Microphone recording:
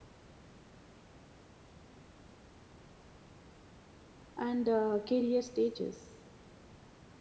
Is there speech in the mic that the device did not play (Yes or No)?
Yes